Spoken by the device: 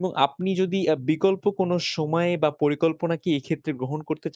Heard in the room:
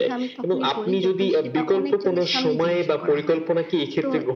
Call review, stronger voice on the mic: echo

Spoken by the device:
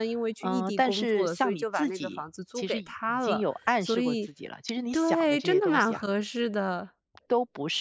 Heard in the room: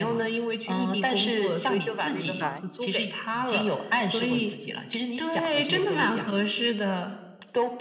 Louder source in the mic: echo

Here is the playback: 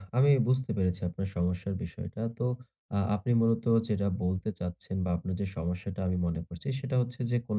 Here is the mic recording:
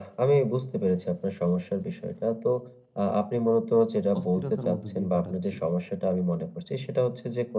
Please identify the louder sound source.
echo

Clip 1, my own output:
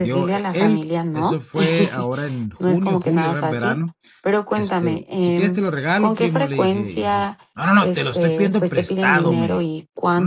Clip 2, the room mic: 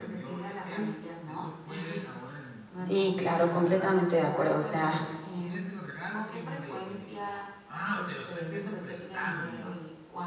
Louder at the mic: user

